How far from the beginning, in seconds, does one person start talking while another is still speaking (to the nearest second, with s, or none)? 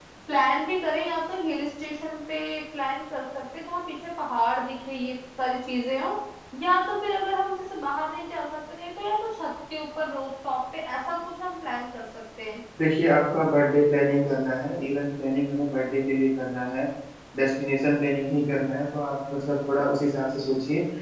none